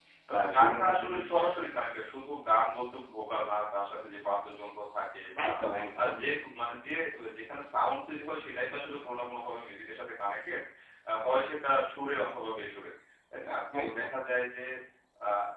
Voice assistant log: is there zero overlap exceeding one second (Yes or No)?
No